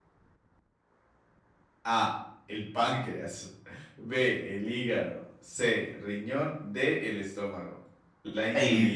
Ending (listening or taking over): taking over